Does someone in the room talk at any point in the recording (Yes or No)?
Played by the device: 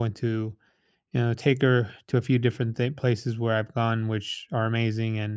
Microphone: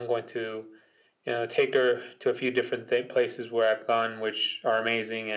No